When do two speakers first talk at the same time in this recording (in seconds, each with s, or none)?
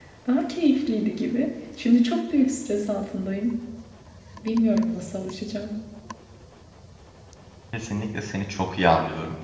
none